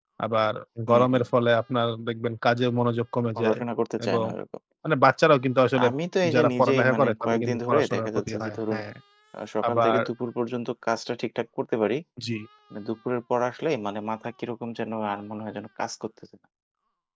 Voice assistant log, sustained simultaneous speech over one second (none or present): present